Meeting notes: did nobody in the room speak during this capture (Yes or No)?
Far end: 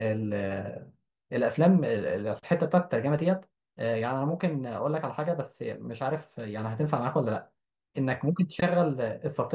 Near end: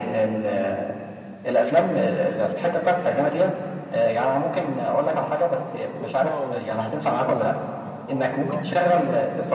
No